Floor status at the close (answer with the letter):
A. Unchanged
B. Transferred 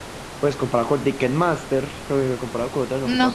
A